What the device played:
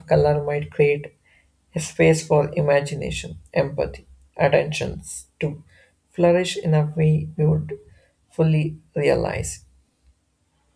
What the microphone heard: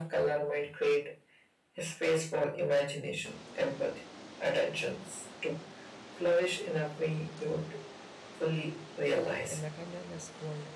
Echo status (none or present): present